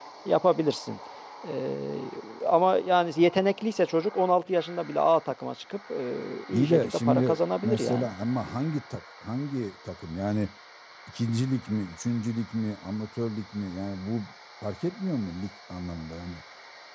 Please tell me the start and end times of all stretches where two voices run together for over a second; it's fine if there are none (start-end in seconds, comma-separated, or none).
6.5-8.1